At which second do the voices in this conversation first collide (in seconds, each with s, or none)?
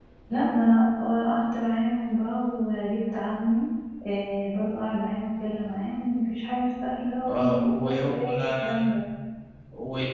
7.3 s